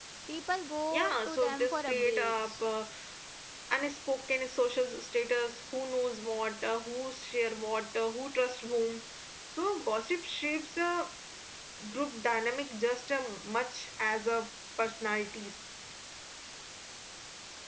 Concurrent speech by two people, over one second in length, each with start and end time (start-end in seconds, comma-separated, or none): 0.9-2.7